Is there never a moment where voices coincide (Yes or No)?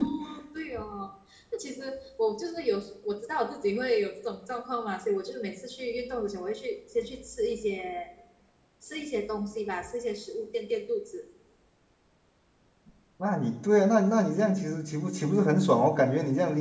Yes